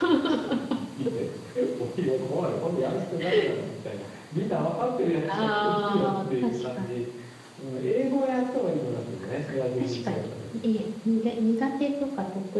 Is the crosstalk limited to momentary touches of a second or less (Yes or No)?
No